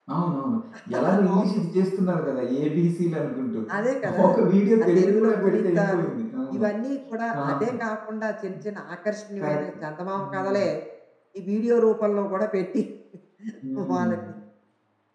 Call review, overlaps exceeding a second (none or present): present